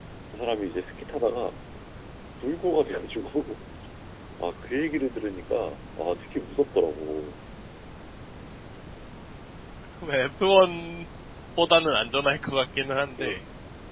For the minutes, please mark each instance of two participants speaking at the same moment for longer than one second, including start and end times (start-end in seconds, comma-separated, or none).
none